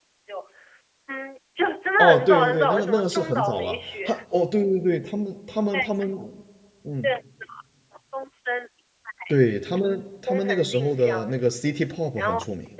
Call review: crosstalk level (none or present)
present